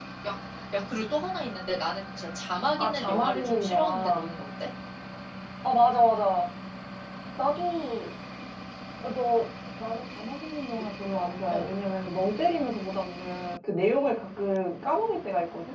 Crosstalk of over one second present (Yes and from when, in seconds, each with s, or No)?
Yes, from 2.7 s